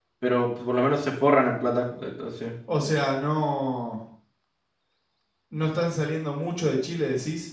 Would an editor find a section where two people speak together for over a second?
No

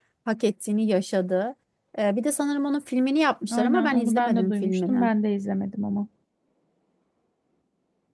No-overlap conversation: No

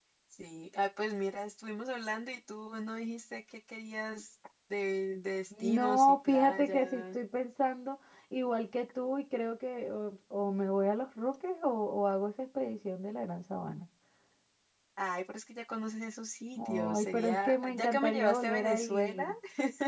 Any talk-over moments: Yes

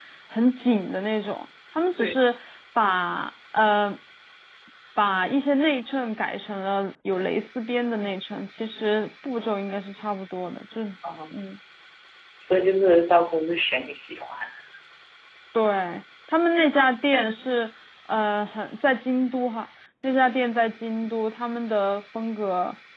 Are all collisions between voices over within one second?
Yes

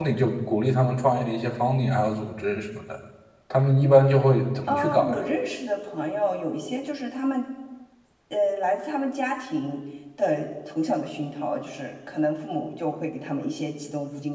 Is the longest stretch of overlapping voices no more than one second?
Yes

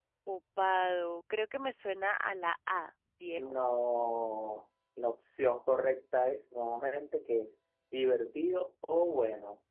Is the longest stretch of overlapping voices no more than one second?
Yes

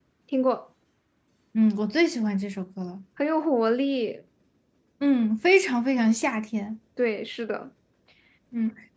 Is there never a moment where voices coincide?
Yes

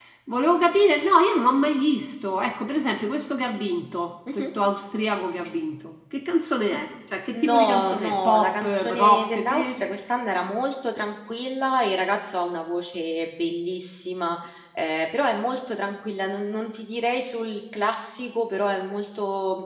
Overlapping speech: Yes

